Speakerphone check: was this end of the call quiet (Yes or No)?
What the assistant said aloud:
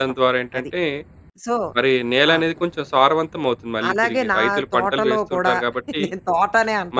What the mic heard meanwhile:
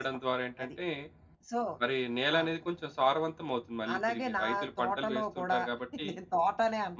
Yes